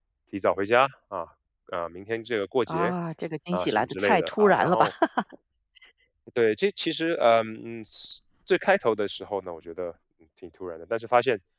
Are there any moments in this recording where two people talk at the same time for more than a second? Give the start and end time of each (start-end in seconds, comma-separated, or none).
3.5-4.9